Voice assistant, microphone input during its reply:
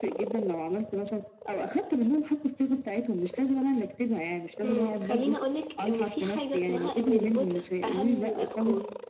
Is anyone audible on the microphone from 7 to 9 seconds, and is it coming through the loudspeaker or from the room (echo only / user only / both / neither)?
both